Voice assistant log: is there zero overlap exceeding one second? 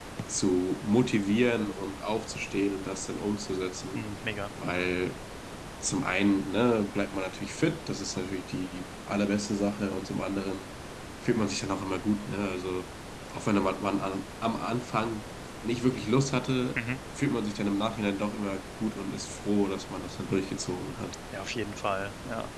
Yes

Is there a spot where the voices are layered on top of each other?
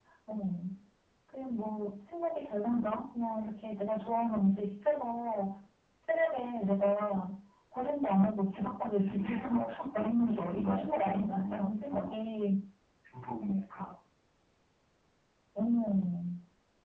Yes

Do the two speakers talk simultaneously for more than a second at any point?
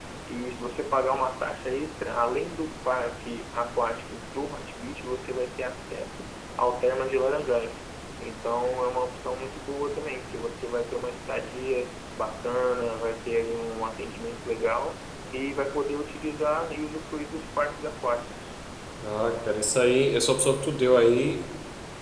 No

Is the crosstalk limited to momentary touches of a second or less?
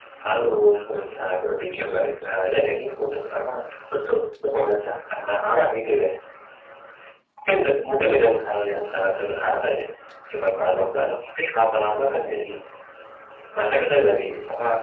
Yes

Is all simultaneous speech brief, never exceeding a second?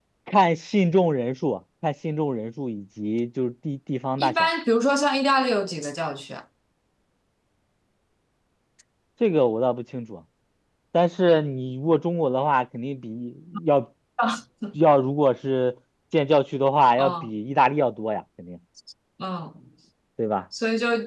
Yes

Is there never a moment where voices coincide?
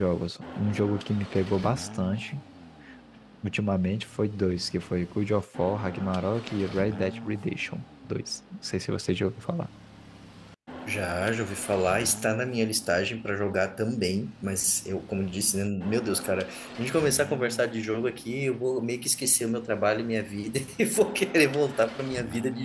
Yes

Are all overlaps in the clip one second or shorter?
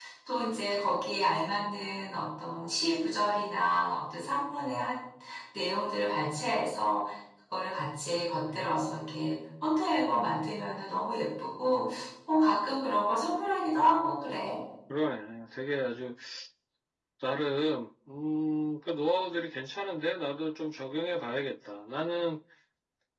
Yes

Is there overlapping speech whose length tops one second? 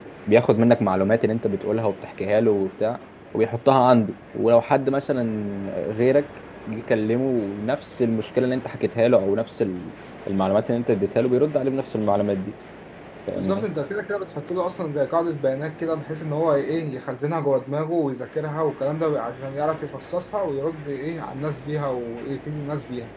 No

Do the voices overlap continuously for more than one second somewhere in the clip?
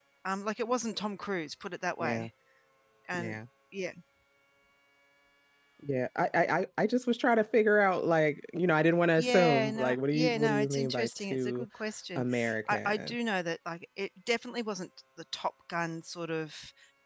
Yes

